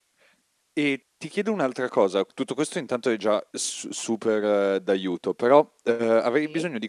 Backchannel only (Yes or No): Yes